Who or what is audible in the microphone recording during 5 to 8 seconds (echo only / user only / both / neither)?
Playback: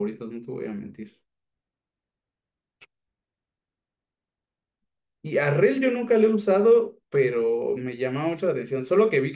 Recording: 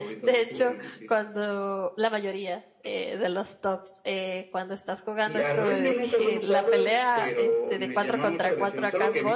both